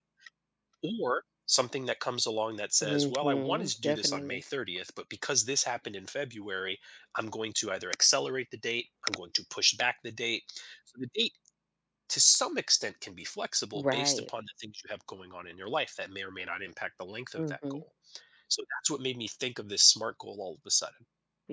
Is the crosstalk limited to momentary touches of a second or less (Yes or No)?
No